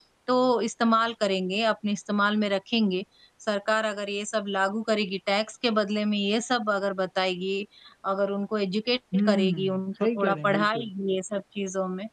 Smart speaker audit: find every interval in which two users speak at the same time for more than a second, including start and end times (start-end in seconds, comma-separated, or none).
9.3-10.9